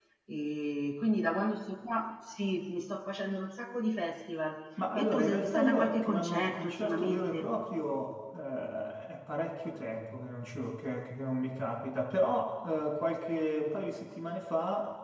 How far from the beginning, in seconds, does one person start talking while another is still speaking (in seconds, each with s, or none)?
4.9 s